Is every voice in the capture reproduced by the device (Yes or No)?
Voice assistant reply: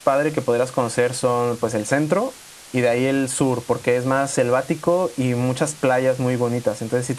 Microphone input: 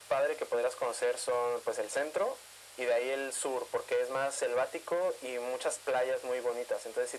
Yes